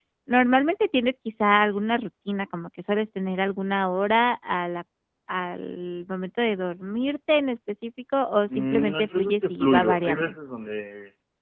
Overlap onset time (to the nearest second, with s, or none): 9 s